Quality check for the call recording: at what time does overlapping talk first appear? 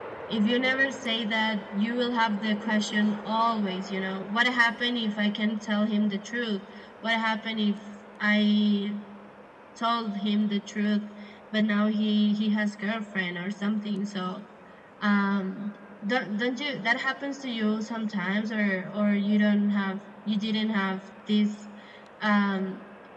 none

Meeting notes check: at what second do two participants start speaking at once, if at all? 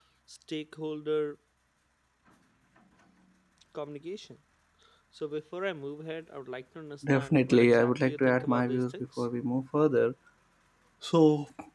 7.0 s

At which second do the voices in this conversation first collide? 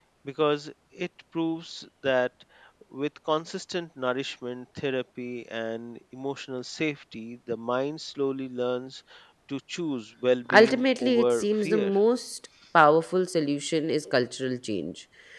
10.5 s

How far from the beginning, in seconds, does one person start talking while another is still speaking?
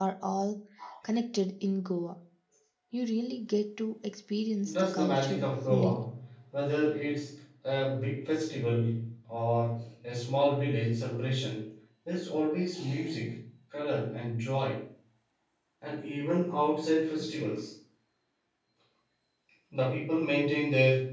4.6 s

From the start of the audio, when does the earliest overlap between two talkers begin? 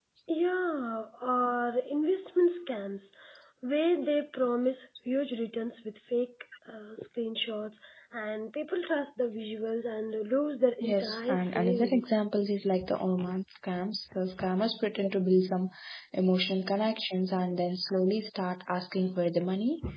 10.8 s

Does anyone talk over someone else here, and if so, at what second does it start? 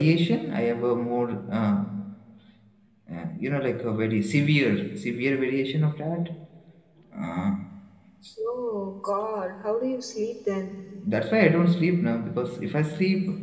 none

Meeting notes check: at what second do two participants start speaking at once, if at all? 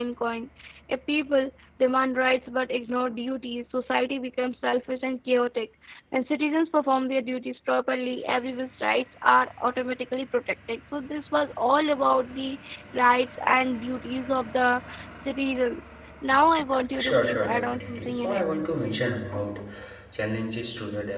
17.0 s

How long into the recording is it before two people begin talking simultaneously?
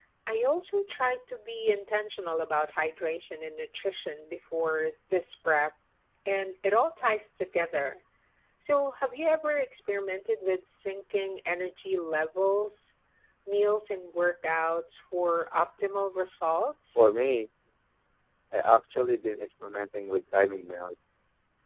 none

